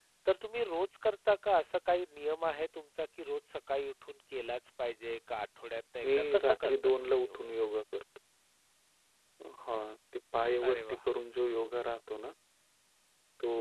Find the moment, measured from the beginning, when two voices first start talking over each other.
6.0 s

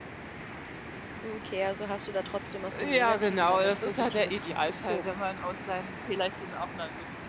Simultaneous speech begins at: 2.7 s

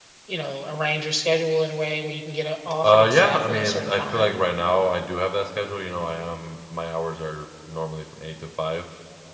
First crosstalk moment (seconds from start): 2.8 s

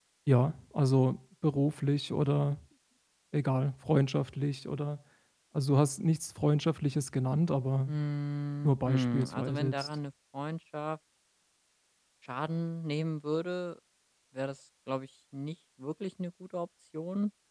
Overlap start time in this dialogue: 8.6 s

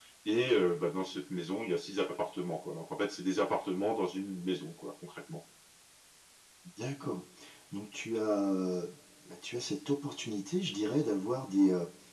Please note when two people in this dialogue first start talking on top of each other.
none

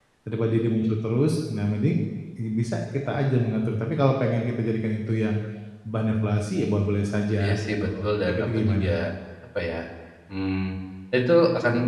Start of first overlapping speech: 7.4 s

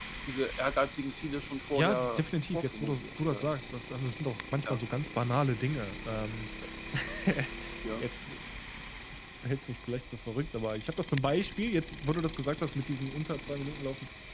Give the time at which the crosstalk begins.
1.8 s

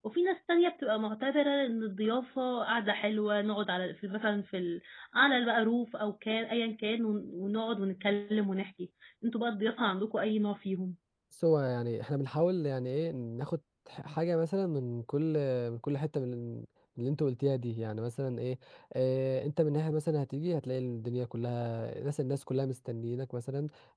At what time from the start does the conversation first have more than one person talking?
none

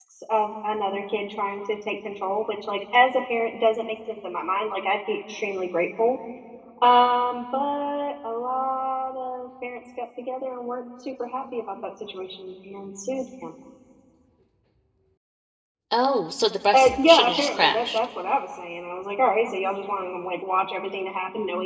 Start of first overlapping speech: 16.7 s

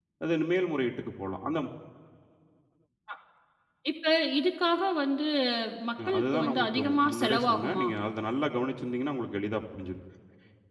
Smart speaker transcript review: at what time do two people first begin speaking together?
6.2 s

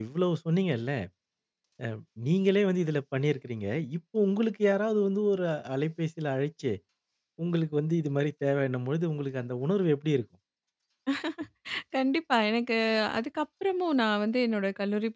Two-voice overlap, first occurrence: none

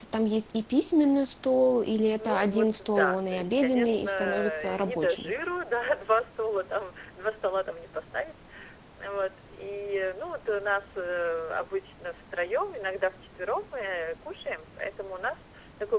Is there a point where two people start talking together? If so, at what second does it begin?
2.2 s

